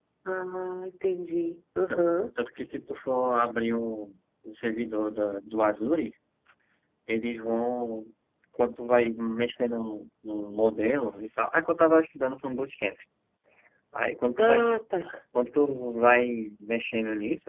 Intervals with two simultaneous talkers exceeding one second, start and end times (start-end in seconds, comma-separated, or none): none